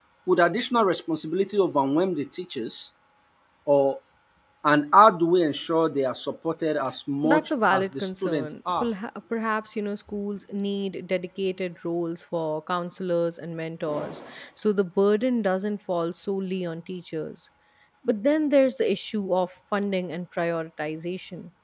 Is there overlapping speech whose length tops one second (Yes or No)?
Yes